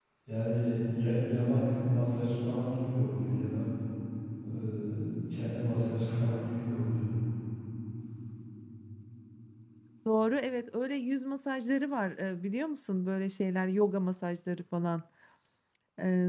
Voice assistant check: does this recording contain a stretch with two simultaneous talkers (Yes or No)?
No